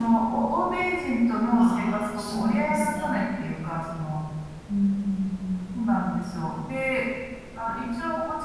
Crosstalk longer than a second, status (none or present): present